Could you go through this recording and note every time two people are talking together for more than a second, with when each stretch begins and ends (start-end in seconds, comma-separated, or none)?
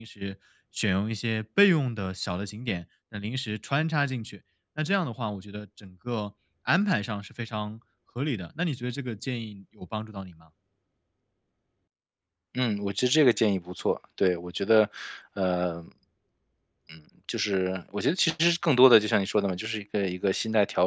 none